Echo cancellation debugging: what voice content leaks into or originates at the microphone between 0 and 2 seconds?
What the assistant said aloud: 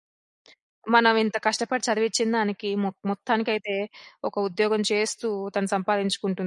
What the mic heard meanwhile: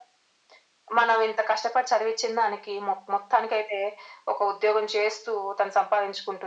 echo only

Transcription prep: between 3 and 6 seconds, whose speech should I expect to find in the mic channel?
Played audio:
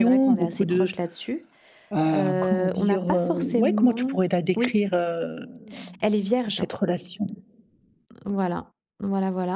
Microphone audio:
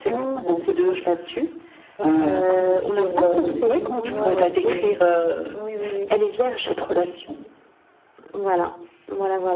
both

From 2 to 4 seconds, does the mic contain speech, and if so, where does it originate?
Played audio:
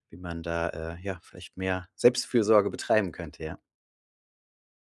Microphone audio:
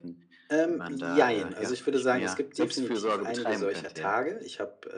both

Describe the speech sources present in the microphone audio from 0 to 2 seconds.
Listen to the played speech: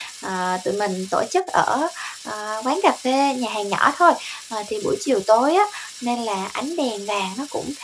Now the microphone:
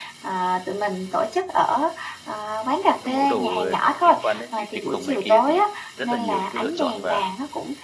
echo only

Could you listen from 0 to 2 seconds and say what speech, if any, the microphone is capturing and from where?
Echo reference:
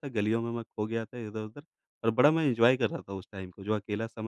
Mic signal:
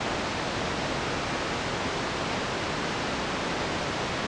neither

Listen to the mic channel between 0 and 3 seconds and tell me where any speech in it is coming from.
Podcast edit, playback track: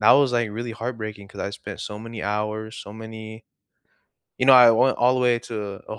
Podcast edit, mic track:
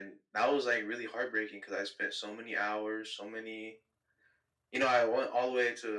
echo only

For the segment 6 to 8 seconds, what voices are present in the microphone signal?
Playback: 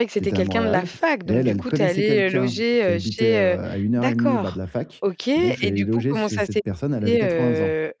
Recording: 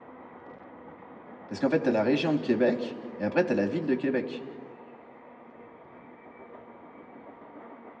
neither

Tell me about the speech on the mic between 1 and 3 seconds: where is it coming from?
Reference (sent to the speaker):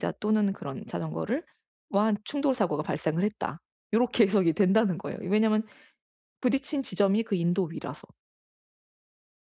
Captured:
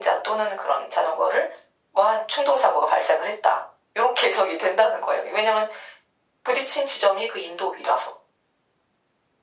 echo only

